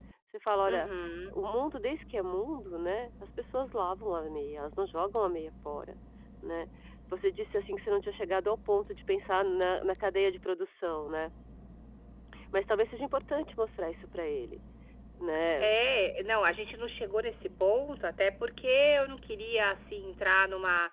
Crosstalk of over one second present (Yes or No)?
No